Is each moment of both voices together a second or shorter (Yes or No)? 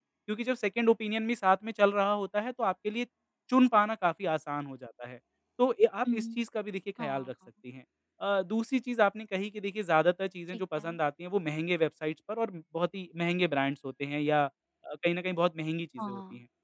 Yes